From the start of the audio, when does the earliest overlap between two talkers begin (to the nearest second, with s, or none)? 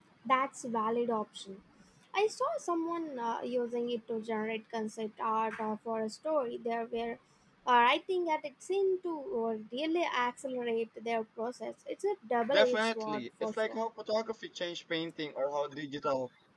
13 s